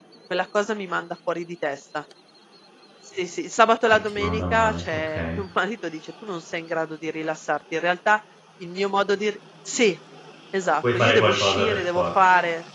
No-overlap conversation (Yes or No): No